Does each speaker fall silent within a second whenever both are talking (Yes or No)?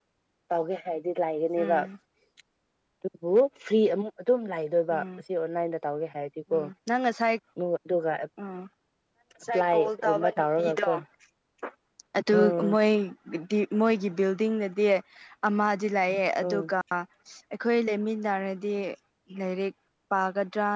No